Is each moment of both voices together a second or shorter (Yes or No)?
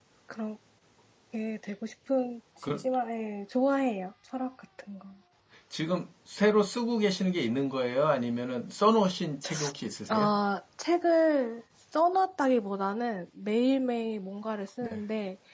Yes